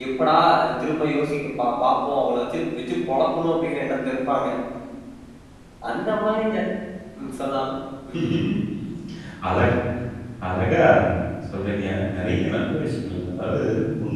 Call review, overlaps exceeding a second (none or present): none